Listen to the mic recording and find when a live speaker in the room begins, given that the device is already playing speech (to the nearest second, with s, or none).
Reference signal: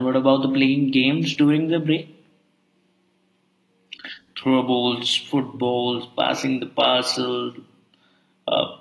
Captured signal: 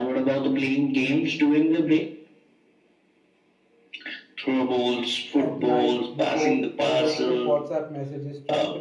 5 s